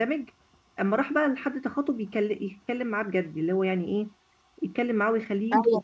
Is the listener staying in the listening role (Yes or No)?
No